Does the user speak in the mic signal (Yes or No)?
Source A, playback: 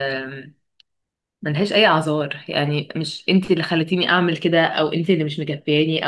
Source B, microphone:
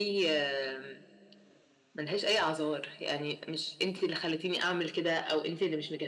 No